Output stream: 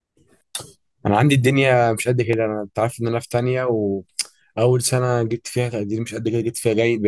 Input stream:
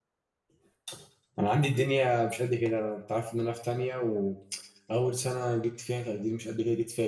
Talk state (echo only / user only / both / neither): echo only